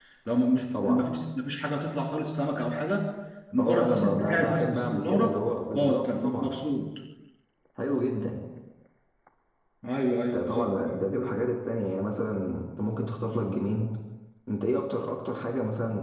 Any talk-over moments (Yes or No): Yes